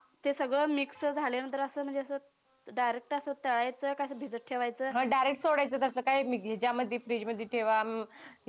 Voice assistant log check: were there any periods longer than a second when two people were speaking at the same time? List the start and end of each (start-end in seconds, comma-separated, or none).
none